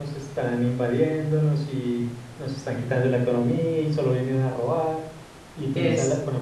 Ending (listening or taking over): listening